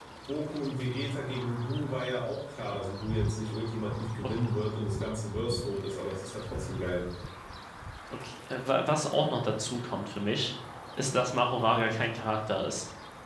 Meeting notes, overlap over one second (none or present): none